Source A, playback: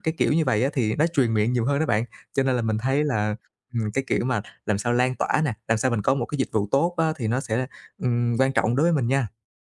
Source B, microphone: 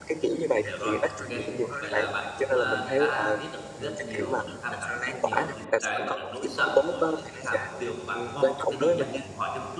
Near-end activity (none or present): present